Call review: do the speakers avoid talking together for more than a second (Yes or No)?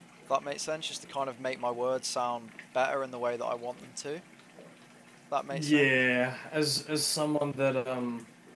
Yes